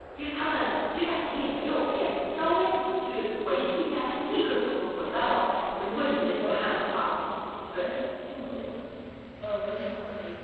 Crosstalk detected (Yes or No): Yes